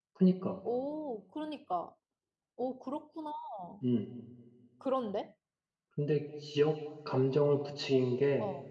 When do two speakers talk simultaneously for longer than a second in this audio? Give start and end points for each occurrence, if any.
none

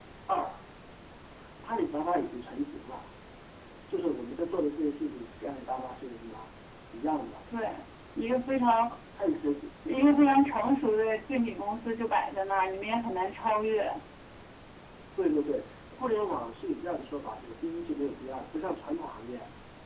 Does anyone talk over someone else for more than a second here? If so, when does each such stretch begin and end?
none

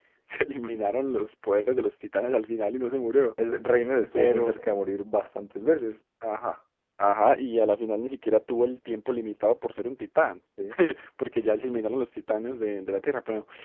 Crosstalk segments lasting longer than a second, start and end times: none

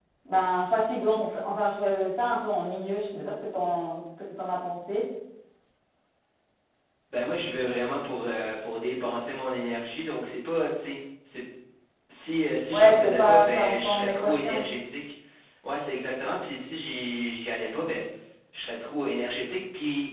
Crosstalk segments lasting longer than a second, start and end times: 12.7-14.6

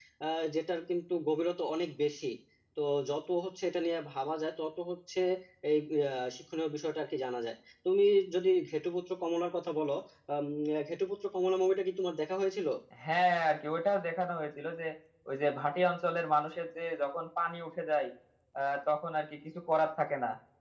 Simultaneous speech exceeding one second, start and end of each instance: none

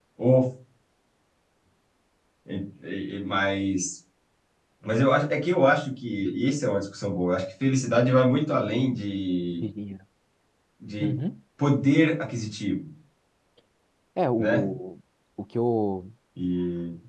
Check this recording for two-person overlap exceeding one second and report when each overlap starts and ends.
none

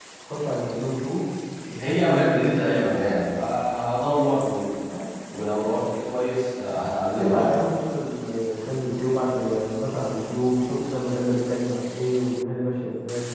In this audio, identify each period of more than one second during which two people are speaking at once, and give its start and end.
none

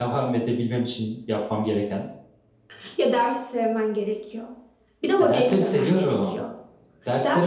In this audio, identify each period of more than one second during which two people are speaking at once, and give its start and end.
5.2-6.4

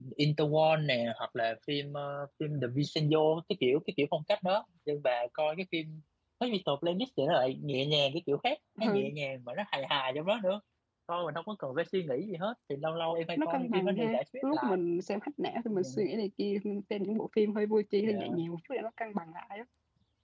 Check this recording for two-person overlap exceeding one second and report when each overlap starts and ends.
13.4-14.8

